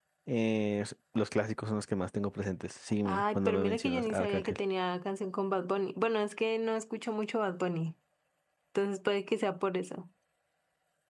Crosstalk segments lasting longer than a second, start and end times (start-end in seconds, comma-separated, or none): 3.0-4.6